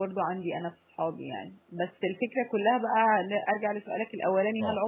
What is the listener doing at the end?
listening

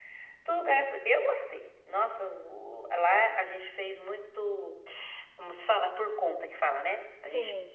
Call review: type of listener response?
listening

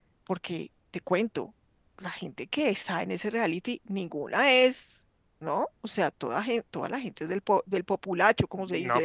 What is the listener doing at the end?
taking over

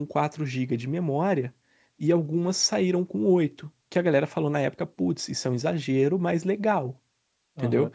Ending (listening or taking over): taking over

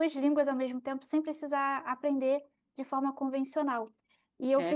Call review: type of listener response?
listening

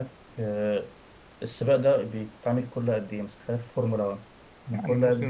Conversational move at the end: taking over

